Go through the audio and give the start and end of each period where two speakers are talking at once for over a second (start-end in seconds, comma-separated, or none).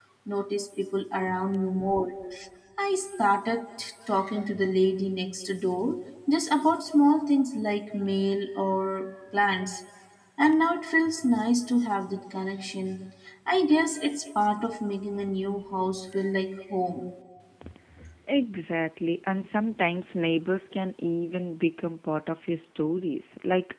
none